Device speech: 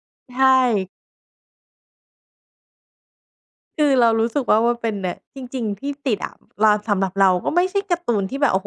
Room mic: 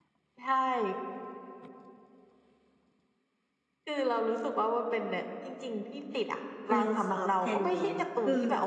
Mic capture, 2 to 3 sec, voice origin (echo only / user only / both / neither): neither